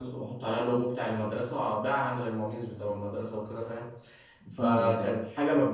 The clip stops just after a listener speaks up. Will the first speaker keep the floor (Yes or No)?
Yes